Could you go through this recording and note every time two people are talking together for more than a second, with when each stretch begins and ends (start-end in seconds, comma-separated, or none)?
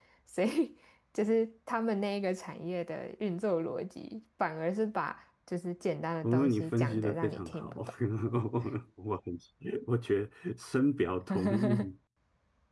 6.2-7.8